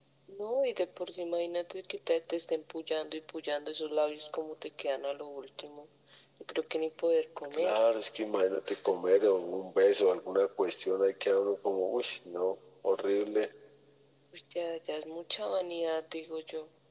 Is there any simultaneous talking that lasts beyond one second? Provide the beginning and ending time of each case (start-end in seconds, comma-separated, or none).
none